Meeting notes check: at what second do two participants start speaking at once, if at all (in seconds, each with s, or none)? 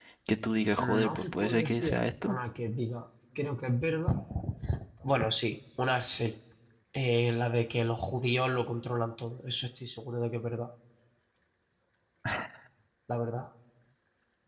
0.8 s